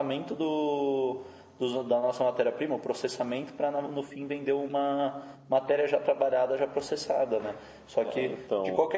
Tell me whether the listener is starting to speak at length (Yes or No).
No